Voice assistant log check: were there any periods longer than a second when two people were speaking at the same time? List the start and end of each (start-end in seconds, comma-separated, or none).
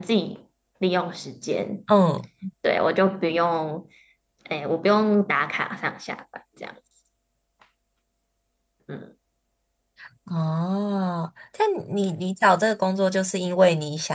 none